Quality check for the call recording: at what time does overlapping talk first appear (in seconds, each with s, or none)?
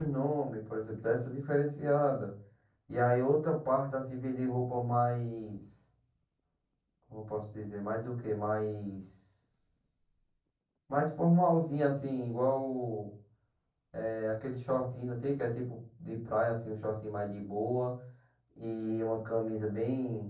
none